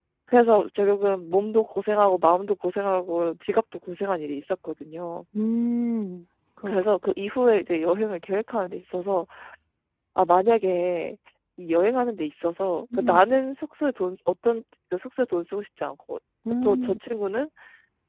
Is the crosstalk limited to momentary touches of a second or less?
Yes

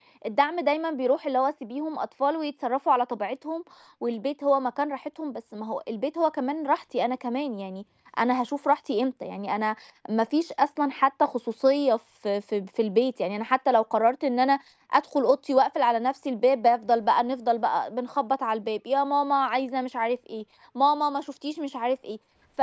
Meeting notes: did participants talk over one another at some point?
No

